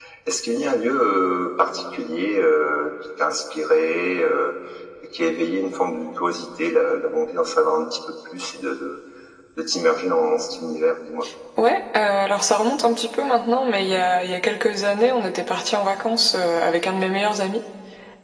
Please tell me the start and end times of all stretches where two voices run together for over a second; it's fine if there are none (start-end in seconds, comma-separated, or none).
none